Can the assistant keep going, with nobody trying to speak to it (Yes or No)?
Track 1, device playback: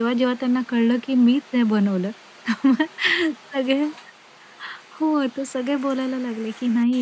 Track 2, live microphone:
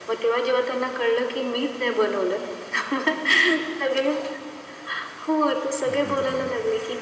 No